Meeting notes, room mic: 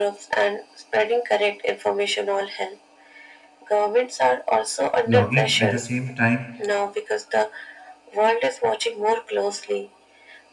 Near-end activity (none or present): present